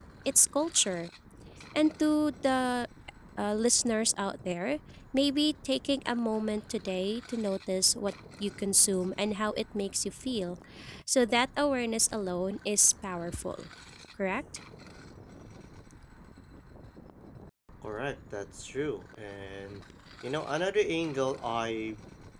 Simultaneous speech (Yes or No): No